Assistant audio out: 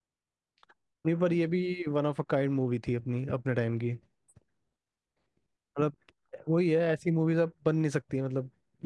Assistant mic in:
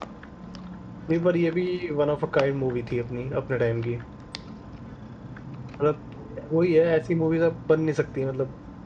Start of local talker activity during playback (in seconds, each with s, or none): none